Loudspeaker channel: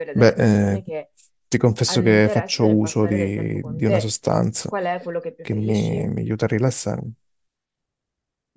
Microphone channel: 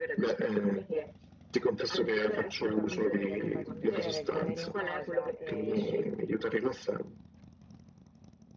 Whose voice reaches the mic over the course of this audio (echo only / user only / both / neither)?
both